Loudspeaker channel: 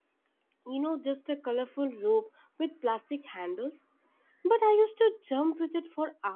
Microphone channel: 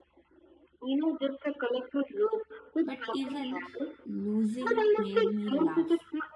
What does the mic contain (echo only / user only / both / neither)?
both